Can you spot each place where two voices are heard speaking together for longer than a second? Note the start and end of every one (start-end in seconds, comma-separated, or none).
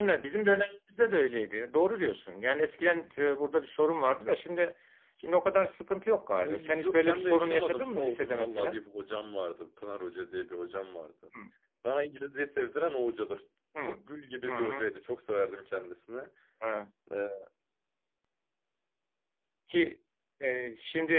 6.4-8.8